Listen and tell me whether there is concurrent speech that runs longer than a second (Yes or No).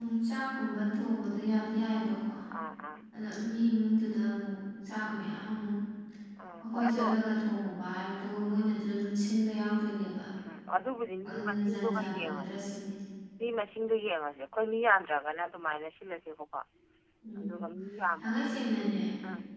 Yes